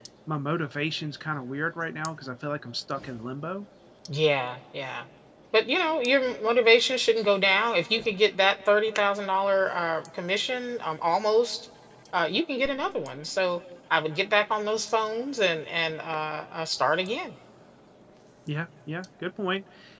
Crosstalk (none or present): none